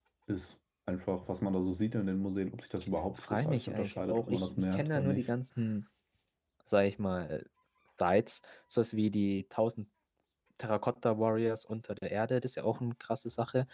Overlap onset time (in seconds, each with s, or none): 3.2 s